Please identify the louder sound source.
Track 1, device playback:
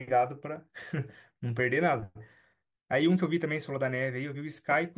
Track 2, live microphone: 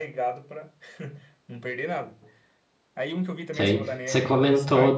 user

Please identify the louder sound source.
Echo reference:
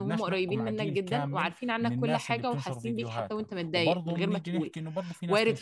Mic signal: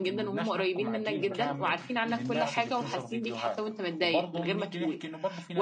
echo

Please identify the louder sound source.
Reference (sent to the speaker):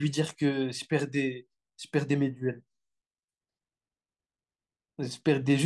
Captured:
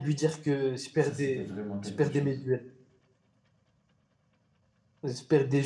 echo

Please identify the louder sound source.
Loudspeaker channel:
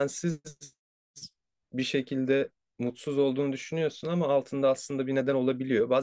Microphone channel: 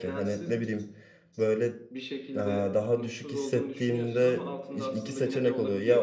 user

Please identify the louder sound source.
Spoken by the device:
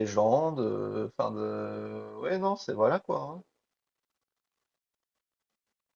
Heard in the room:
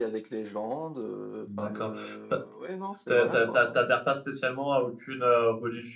user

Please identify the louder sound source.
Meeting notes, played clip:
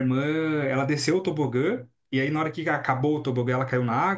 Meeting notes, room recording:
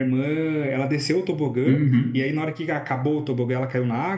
user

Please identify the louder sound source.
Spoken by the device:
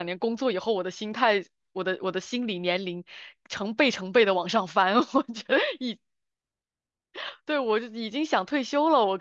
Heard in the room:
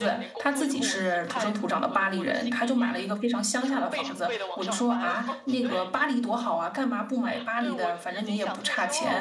user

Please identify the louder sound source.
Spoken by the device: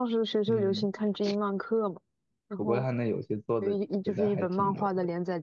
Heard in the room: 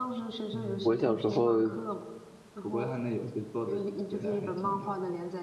user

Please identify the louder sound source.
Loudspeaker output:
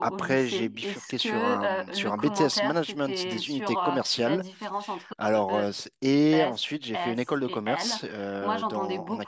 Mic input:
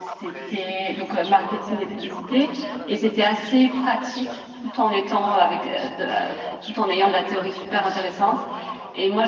user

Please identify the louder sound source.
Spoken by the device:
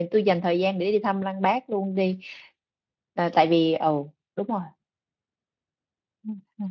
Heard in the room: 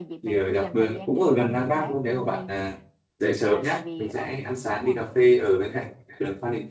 user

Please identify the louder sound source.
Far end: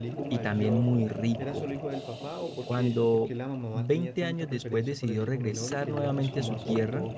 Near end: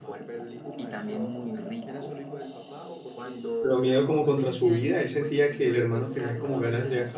user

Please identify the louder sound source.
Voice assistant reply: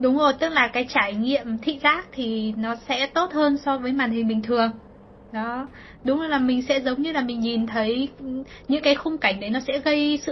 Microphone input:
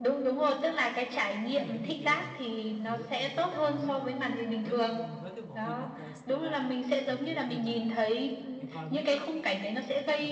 echo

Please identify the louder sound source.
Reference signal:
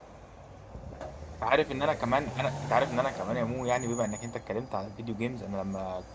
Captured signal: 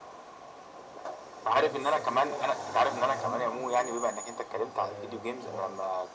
echo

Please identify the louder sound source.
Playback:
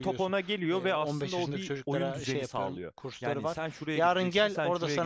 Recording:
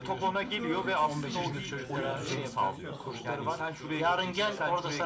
echo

